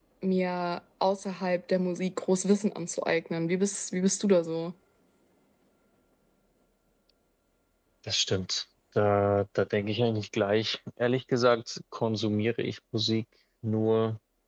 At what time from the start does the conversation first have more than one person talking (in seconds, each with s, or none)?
none